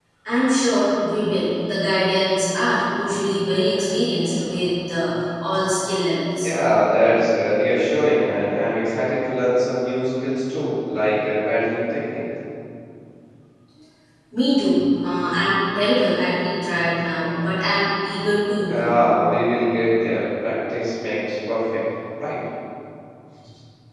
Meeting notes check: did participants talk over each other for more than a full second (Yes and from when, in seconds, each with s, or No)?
No